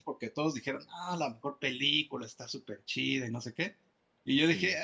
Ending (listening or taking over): listening